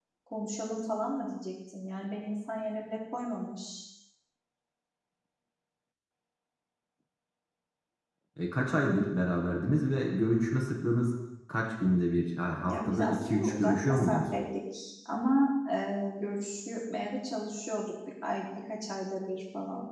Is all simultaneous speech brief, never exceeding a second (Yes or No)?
No